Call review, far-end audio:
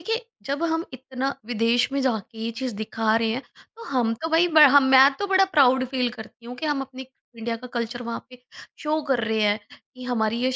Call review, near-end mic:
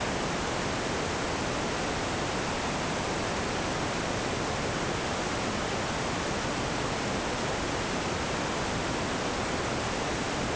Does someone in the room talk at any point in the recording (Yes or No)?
No